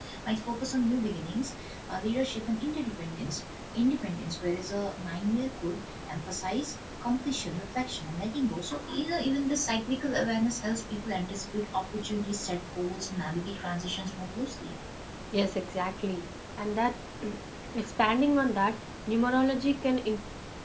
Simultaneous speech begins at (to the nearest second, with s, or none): none